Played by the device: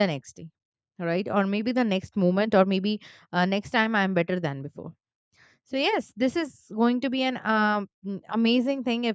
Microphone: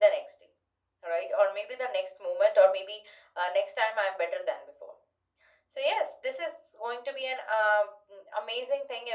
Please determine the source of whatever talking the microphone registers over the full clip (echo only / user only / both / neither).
echo only